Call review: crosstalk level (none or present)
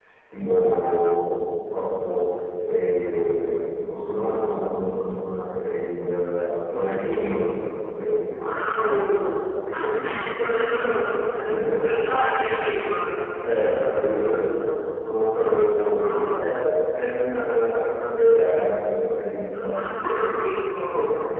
present